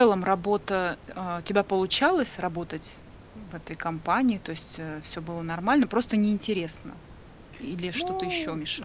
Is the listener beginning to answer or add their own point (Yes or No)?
Yes